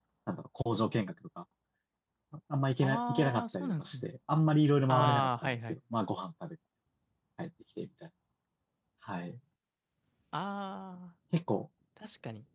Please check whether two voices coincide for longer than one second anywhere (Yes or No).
Yes